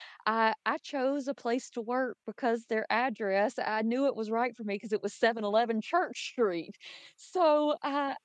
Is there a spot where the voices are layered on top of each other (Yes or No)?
No